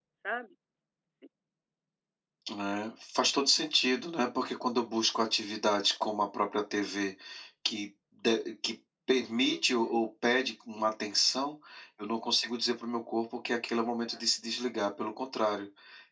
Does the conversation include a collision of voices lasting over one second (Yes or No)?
No